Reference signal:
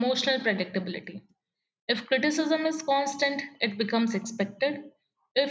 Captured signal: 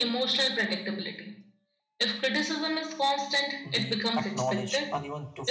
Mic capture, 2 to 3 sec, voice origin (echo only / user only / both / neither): echo only